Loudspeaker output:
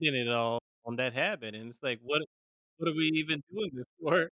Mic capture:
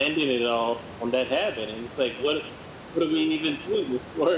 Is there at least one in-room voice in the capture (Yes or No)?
No